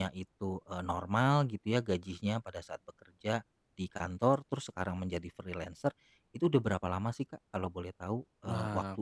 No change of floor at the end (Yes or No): No